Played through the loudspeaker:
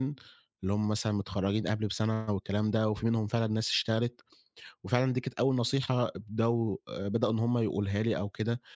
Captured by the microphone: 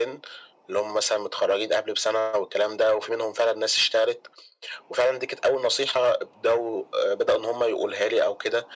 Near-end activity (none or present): none